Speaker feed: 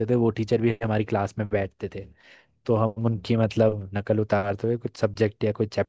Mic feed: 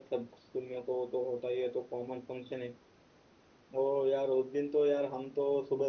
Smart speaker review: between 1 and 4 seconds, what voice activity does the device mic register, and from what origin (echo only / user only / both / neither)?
user only